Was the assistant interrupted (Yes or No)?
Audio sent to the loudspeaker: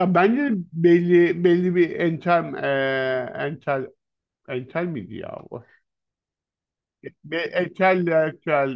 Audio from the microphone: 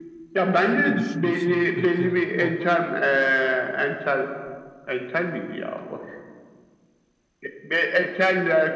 Yes